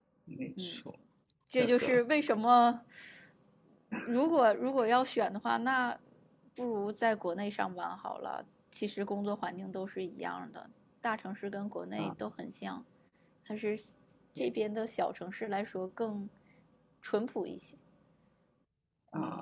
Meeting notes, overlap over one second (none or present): none